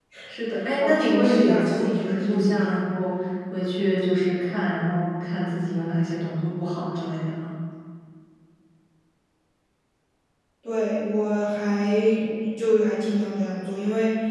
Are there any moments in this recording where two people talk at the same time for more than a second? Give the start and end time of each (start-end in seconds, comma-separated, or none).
0.8-2.6